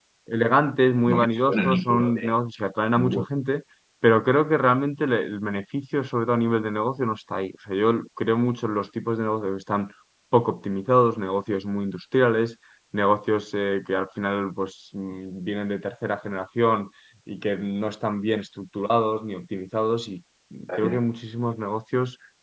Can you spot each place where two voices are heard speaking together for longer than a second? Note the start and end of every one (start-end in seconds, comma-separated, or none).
1.1-2.3